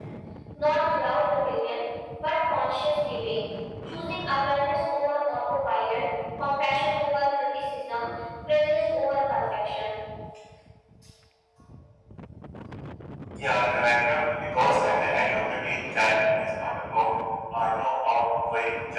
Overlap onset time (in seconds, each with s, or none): none